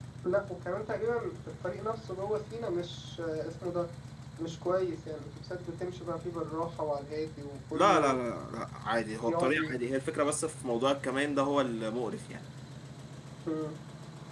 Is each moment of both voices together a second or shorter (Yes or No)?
Yes